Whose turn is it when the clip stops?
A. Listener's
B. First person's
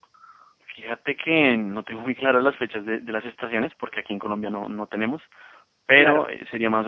B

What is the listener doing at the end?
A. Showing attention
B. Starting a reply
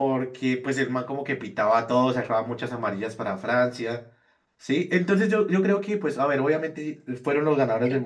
B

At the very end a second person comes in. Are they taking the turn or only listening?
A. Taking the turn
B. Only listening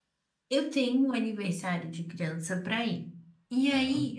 B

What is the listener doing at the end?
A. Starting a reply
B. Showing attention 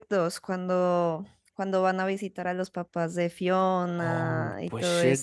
A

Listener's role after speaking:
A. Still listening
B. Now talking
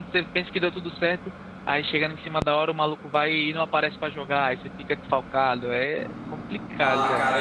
B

